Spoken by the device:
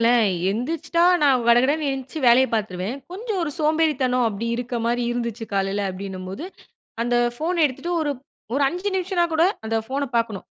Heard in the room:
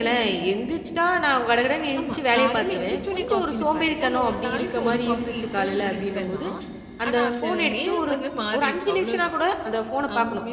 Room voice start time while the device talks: 2 s

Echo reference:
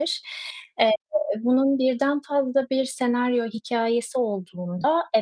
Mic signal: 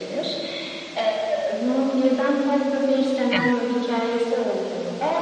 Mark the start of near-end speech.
3 s

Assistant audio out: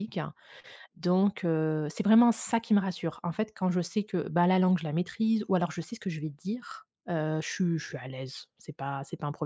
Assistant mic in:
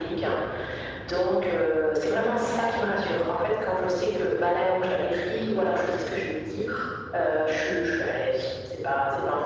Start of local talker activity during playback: none

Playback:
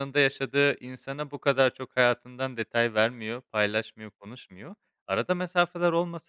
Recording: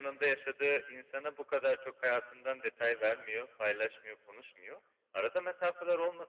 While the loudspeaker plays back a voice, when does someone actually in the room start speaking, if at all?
none

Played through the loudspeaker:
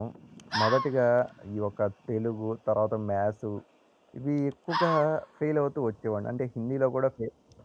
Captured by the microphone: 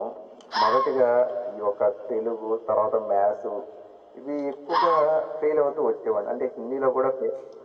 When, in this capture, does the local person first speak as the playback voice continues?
none

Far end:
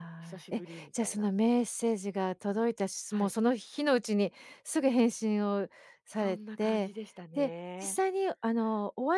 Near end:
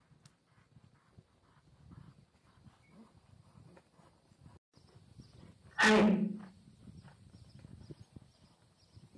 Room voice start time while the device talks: 6 s

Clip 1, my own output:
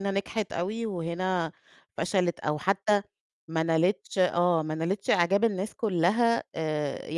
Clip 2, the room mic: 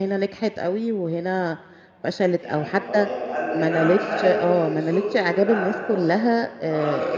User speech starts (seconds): 2 s

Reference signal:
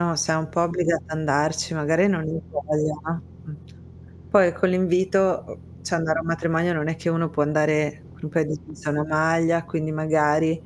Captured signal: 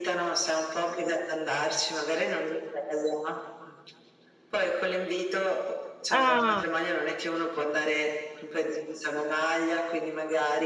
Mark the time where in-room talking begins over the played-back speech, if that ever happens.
6 s

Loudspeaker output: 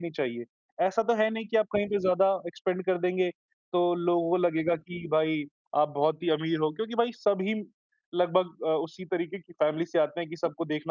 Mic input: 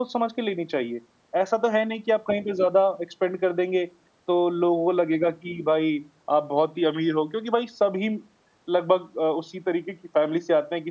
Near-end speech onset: none

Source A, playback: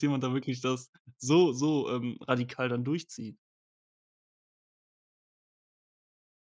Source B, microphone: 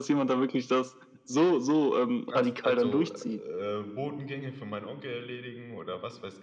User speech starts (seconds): 2 s

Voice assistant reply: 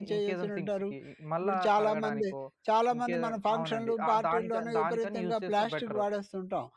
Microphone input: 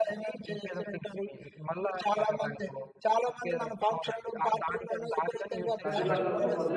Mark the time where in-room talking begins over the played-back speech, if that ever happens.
6 s

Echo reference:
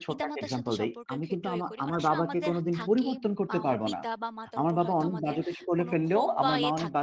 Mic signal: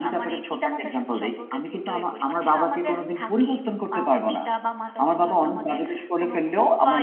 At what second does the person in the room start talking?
none

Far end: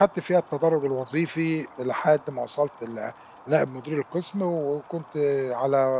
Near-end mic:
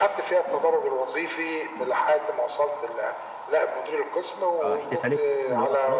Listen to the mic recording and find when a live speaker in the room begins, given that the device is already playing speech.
5 s

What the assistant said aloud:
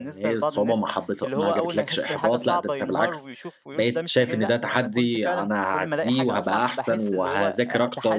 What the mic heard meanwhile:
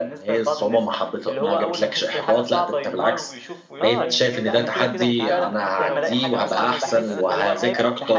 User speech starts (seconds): 4 s

